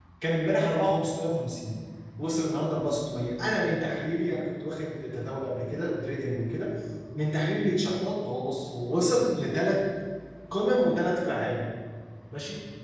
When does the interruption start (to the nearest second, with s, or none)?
none